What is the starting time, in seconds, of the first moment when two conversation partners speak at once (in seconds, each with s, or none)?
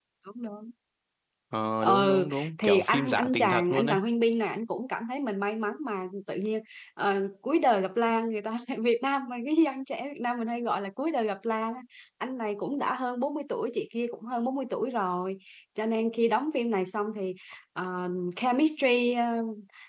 1.8 s